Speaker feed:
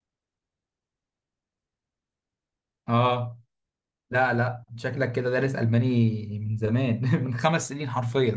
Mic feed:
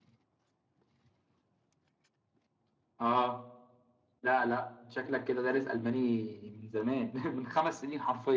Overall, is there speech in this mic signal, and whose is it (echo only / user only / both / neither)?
echo only